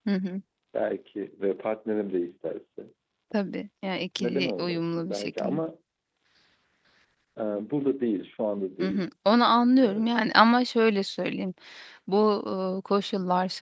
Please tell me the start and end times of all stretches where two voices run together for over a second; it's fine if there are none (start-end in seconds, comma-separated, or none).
4.2-5.6